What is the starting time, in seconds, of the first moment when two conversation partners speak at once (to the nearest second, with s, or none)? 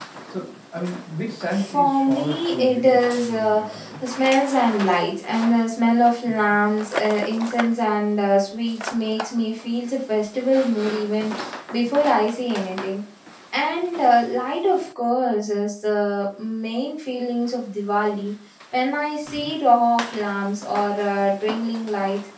2 s